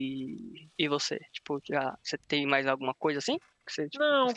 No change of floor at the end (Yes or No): No